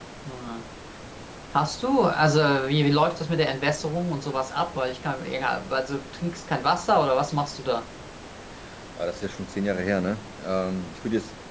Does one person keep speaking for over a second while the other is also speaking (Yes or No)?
No